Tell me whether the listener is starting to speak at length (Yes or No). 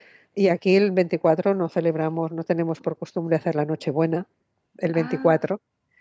No